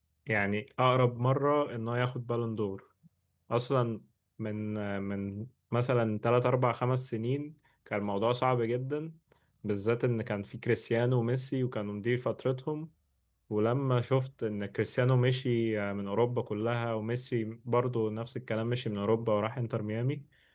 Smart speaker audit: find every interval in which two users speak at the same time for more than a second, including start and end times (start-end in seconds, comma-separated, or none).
none